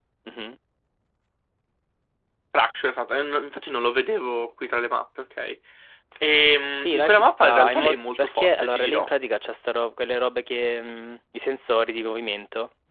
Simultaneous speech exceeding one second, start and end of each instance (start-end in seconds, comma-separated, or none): 6.8-9.1